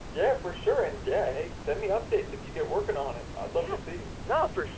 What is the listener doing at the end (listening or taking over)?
taking over